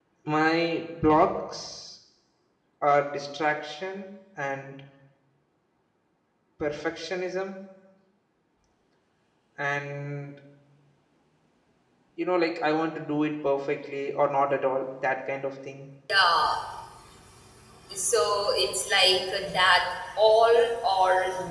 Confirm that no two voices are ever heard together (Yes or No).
Yes